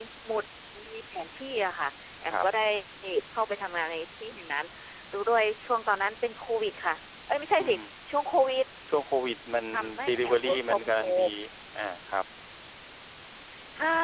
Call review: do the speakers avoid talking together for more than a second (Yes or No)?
No